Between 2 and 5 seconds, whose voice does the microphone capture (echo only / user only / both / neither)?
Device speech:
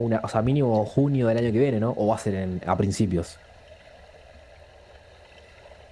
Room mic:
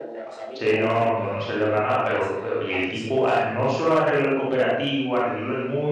both